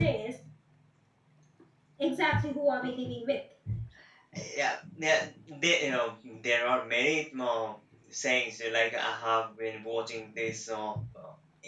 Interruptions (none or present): none